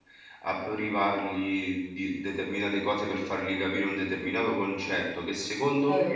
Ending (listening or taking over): listening